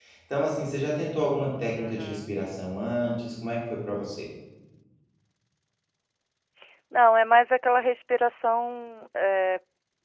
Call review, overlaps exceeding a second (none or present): none